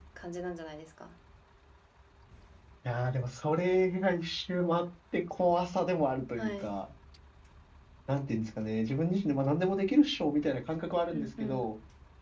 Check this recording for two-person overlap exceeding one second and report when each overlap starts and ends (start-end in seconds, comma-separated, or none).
none